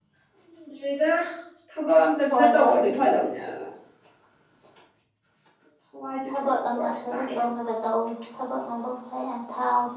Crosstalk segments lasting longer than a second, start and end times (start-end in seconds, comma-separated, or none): 6.3-7.5